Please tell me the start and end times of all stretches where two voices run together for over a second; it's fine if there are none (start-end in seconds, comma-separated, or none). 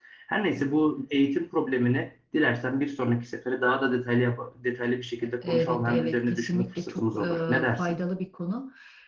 5.5-8.0